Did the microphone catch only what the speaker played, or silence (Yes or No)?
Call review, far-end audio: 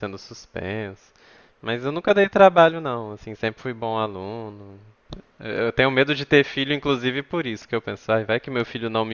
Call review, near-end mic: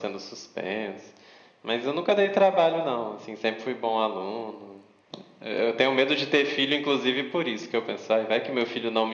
Yes